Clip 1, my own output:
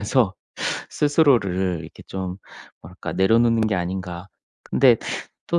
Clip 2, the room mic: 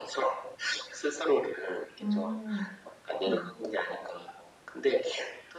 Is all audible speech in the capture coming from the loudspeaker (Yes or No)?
No